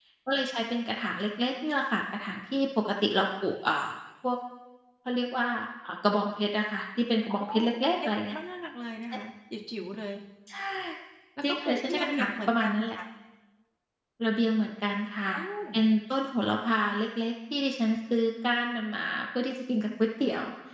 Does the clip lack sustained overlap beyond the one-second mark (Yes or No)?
No